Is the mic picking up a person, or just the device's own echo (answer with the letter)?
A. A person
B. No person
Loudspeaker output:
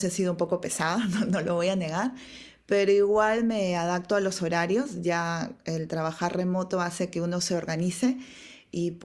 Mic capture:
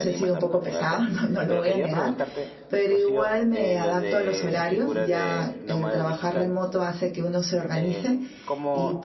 A